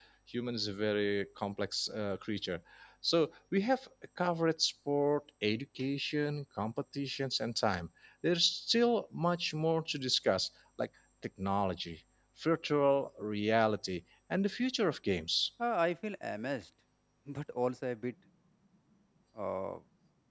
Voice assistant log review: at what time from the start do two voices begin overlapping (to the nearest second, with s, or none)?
none